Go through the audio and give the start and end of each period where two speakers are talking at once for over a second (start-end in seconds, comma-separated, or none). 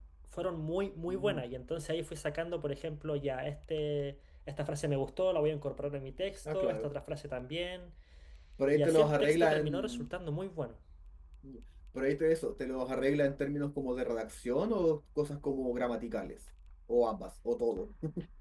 8.7-10.1